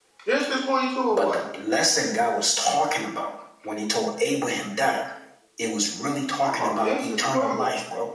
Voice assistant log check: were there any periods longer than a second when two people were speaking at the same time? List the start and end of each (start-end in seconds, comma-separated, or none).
6.4-7.7